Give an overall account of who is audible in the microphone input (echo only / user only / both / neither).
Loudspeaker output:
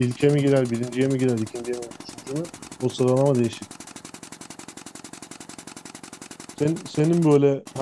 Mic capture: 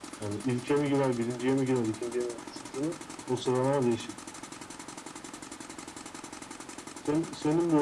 echo only